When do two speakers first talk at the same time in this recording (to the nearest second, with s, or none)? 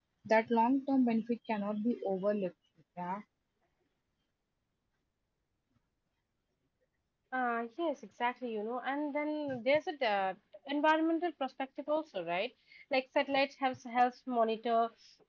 none